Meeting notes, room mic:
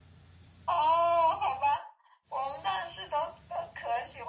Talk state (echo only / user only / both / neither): echo only